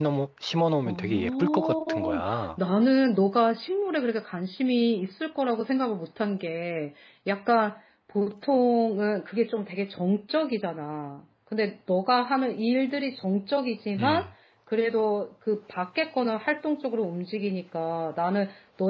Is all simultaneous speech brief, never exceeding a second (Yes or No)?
No